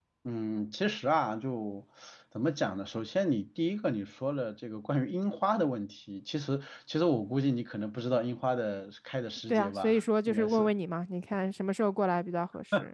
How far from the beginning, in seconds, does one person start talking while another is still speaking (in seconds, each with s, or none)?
9.5 s